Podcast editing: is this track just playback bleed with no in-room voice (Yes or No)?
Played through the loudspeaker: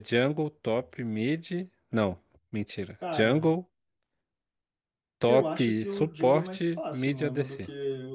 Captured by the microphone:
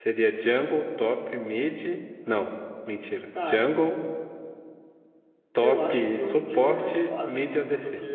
Yes